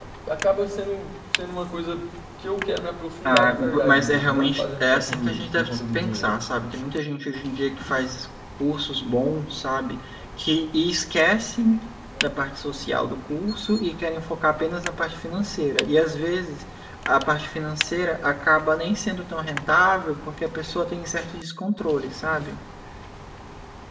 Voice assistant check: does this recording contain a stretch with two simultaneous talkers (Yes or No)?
Yes